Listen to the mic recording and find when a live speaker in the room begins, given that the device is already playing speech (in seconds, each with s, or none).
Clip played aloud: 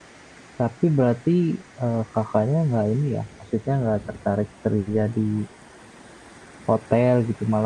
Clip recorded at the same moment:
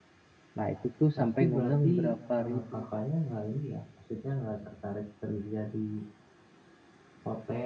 0.6 s